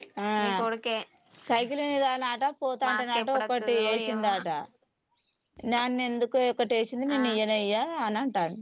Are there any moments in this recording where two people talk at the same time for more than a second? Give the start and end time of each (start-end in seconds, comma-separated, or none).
2.9-4.4